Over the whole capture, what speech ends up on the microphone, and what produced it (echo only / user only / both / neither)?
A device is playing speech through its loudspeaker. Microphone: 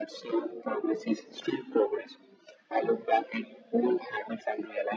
echo only